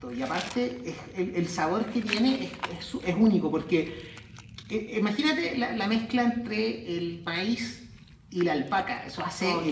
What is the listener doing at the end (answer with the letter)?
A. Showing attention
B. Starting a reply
A